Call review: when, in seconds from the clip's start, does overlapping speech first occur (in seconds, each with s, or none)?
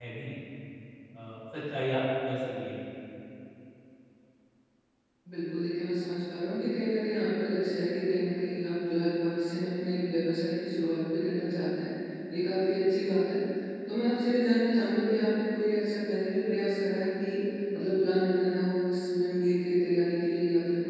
none